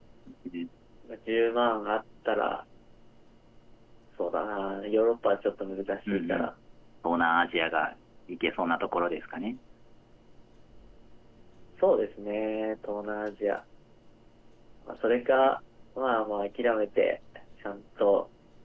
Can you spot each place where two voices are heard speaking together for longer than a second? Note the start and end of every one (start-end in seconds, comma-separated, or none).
none